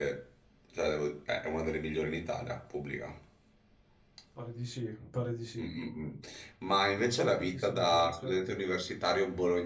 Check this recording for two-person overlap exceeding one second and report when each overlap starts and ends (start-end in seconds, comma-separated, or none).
7.0-8.3